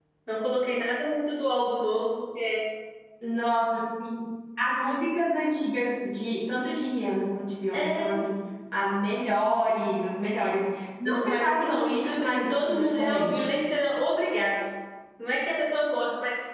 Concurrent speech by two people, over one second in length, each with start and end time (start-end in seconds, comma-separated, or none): 11.1-13.5